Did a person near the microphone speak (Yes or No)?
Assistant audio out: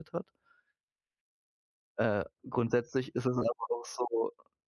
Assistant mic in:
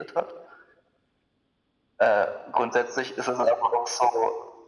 No